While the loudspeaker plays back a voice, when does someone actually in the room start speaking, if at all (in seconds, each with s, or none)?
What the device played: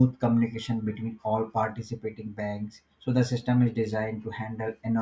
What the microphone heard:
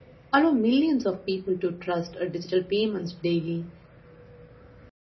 0.3 s